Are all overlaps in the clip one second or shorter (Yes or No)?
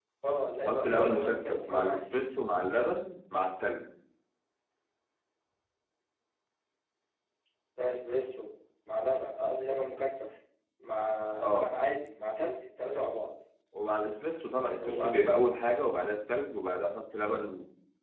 No